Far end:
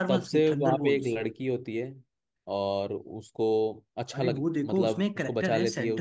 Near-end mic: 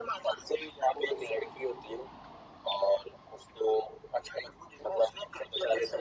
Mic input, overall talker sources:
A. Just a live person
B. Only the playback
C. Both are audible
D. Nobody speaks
B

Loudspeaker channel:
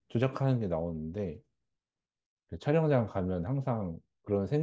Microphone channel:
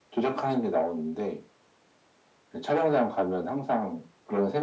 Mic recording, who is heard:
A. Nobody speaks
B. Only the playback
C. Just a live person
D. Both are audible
B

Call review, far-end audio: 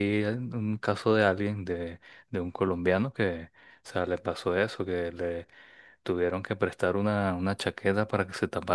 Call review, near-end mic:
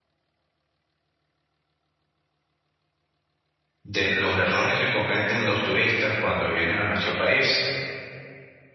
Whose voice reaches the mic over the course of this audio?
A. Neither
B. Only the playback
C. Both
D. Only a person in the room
D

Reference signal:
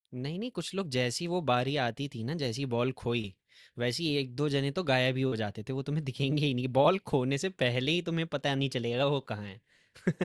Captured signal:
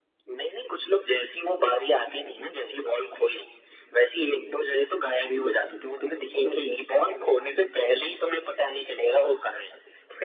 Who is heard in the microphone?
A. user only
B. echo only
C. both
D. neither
C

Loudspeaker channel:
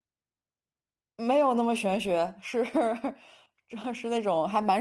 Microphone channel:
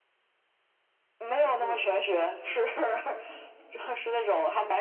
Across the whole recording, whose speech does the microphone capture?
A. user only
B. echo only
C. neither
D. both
D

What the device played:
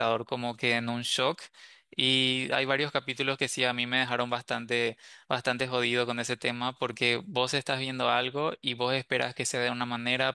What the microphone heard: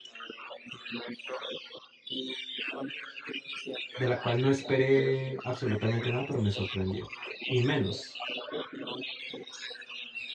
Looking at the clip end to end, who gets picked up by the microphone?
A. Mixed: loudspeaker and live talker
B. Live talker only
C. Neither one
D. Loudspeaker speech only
A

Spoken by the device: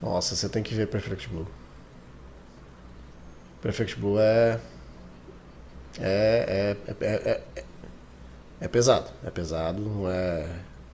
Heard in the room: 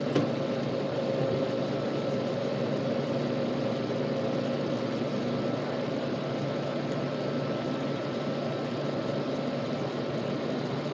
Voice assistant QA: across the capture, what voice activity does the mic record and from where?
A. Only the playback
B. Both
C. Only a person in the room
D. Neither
D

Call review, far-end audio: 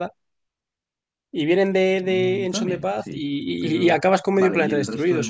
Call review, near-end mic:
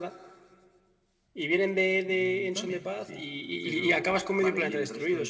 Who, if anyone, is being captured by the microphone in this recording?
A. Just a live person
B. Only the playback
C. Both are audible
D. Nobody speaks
B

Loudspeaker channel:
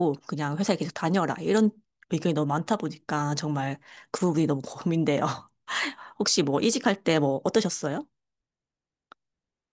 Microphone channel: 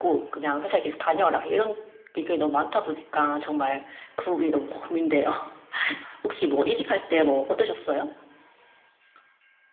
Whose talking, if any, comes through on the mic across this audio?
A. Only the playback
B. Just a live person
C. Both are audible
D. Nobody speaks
A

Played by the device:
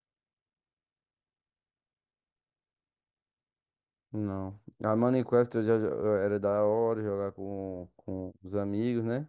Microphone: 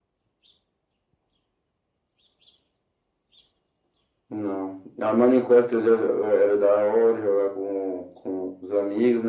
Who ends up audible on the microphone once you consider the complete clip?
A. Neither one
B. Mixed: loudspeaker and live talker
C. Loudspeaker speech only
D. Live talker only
C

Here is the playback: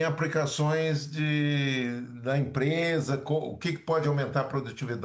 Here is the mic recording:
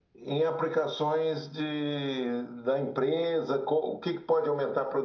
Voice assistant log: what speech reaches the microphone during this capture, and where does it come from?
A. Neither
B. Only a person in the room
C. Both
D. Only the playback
D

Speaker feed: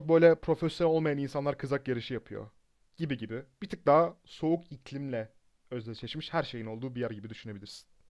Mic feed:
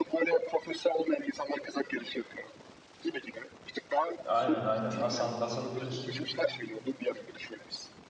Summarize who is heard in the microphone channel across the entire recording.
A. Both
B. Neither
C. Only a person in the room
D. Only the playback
A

